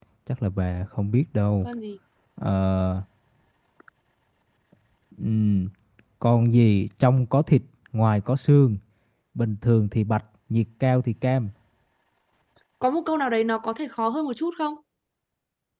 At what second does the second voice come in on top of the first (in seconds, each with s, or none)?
none